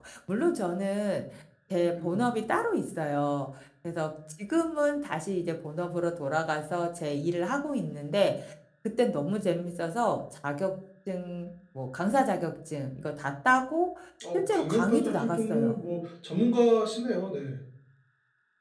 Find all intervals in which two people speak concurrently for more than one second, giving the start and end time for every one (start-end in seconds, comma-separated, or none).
14.3-15.8